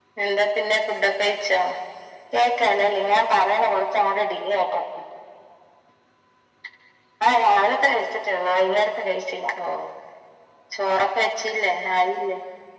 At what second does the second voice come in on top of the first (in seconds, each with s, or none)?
none